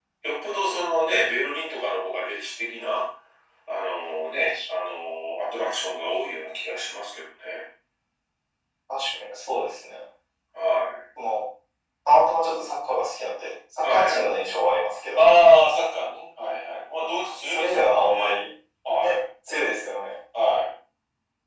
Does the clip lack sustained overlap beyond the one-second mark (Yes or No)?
No